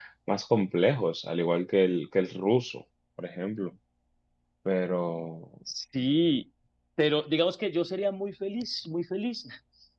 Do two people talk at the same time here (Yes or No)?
No